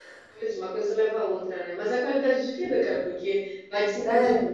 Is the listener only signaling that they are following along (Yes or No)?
Yes